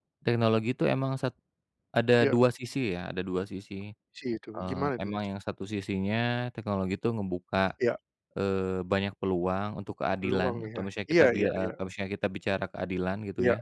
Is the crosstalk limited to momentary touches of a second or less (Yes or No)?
No